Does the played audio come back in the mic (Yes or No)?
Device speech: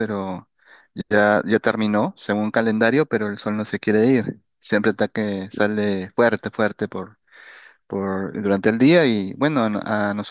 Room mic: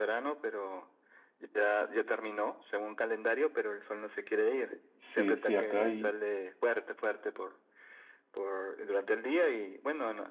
Yes